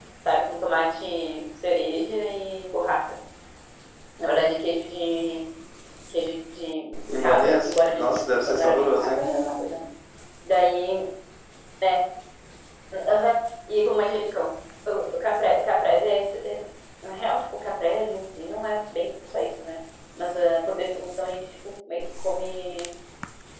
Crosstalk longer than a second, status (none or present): present